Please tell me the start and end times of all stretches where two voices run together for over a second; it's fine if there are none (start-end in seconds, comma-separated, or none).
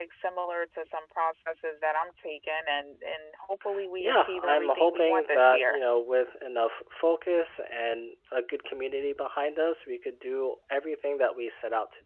4.0-5.8